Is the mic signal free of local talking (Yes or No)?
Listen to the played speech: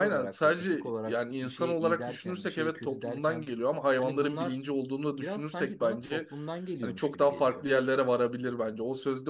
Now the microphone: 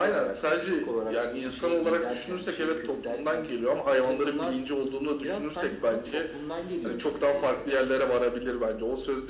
Yes